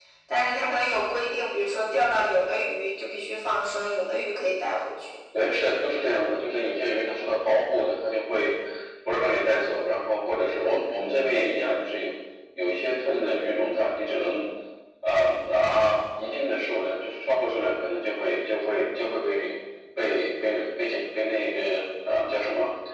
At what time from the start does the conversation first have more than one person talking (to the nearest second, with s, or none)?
none